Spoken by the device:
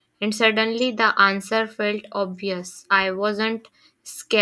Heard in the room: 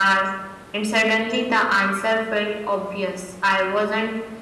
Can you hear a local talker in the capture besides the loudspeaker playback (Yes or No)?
No